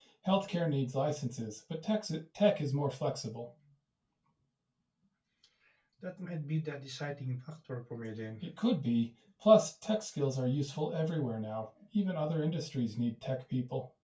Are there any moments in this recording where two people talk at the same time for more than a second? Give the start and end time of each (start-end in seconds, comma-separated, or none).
none